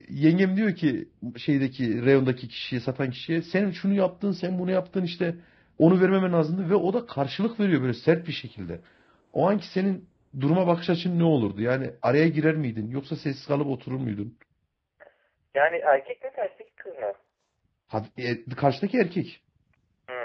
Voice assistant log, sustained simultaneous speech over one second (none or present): none